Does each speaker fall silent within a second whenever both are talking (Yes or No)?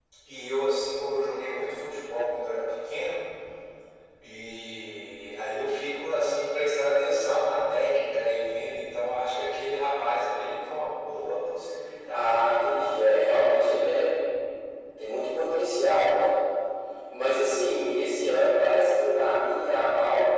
No